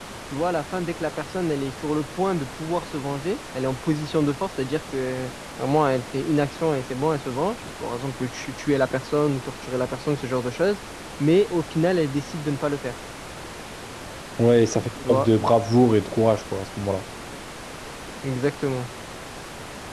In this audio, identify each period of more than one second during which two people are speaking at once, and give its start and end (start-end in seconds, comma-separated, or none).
none